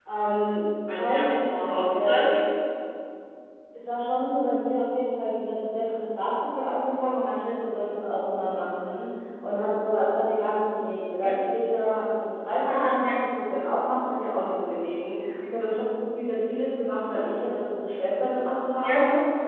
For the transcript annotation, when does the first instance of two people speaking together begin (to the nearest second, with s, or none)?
1 s